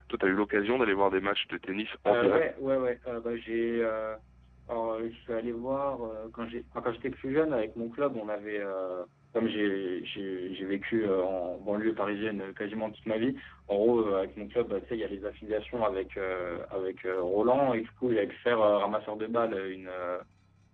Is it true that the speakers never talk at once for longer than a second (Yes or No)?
Yes